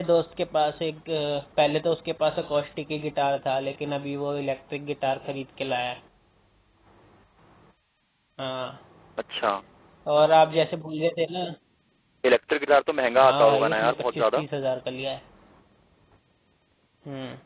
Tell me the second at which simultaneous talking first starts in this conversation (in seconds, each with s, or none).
13.2 s